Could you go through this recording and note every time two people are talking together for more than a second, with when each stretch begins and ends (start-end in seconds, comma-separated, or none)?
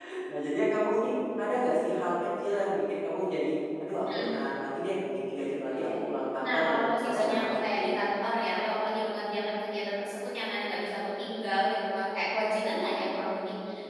6.4-7.8